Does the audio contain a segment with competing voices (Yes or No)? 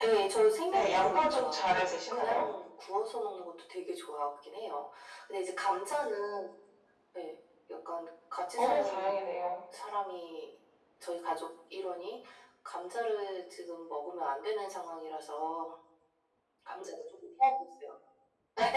Yes